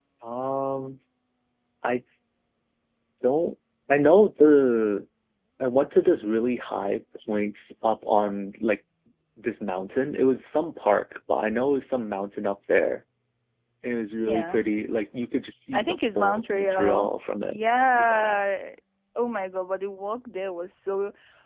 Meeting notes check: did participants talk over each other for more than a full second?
Yes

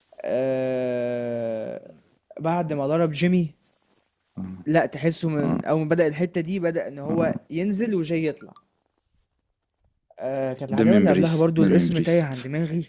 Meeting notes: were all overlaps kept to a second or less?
No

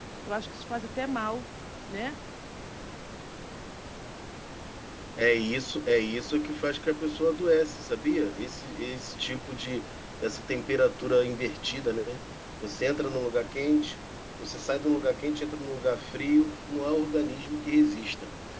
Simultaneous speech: No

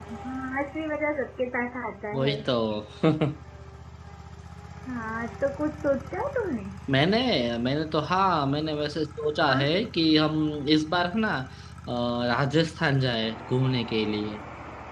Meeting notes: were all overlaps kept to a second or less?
Yes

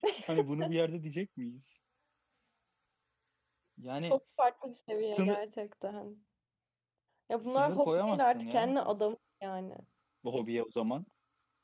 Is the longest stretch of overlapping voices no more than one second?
No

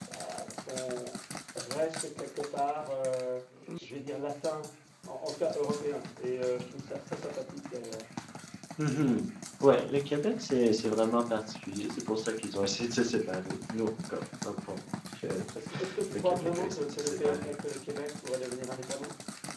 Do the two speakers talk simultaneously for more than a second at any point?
Yes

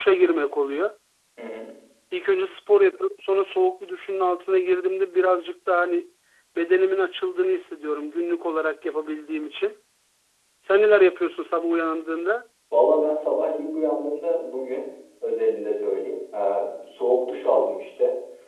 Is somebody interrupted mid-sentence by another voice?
No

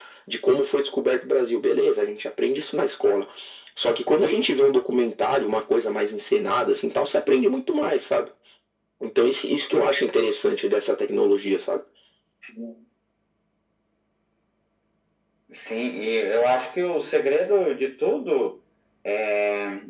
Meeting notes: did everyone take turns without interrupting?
Yes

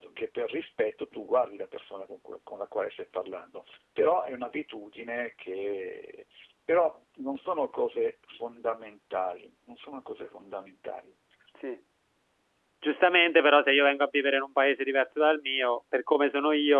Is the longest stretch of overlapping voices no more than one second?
Yes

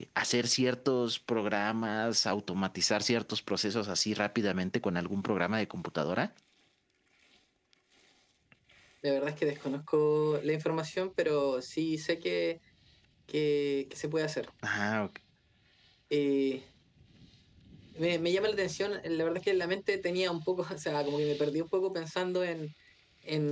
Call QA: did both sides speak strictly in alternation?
Yes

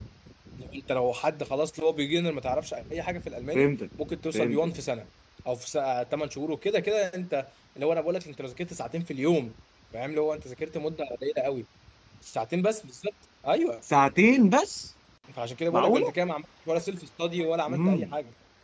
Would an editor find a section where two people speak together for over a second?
No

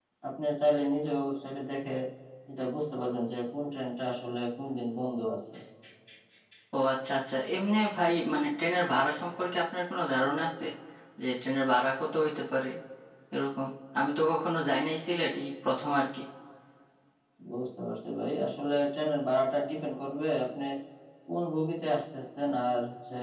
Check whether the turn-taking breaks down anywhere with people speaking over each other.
No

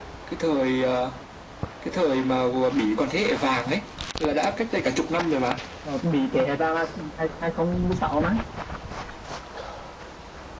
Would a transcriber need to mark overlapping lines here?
No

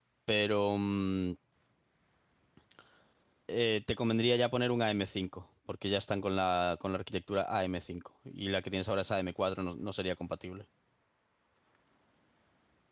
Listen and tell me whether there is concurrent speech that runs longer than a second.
No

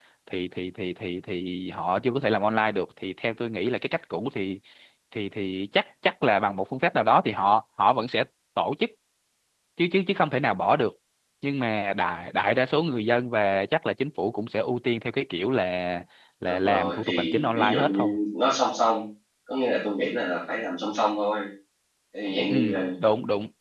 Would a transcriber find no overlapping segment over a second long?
No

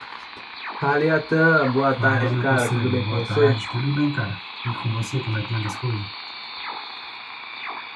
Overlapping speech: Yes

